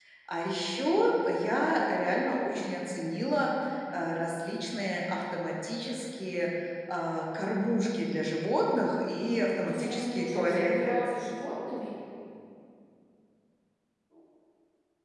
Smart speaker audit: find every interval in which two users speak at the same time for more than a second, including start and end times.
9.3-11.0

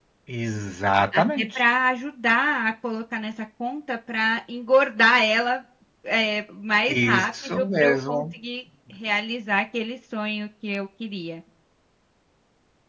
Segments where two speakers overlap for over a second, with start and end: 6.9-8.2

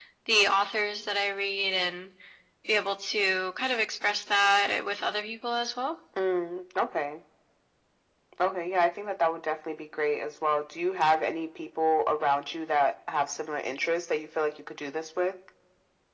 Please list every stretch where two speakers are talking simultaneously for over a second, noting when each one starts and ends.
none

